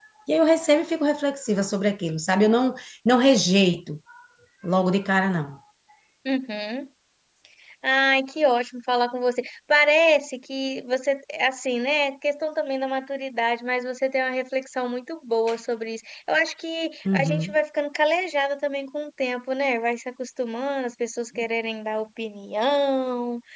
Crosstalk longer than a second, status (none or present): none